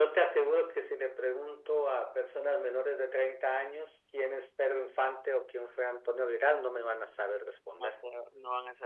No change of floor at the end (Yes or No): No